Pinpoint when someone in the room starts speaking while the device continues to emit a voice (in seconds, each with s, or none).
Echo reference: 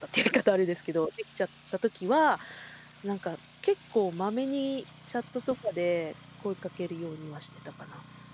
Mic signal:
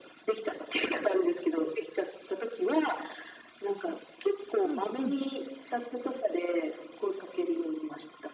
4.6 s